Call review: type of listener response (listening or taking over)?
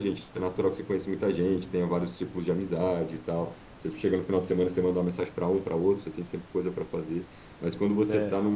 listening